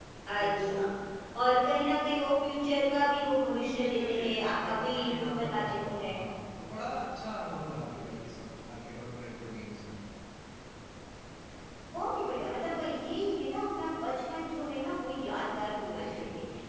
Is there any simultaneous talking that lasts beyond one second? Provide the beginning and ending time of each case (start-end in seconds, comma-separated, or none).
3.8-6.2